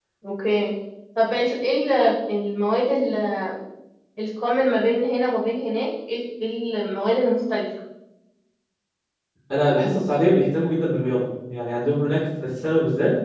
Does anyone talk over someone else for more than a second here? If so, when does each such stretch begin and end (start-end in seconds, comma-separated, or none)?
none